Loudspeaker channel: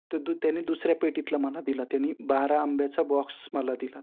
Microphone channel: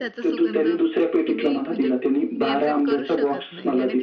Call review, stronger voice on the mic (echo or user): echo